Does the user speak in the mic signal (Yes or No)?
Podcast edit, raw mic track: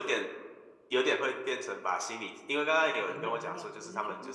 Yes